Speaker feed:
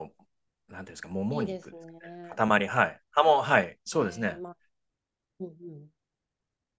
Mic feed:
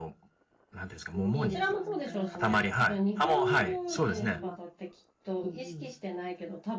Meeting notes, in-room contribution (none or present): present